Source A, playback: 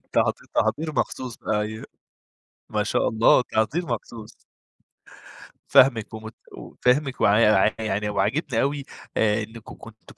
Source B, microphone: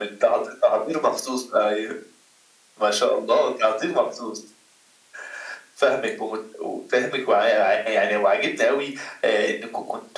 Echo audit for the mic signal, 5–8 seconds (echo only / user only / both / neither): echo only